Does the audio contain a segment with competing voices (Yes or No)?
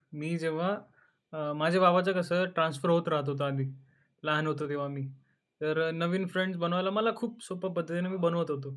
No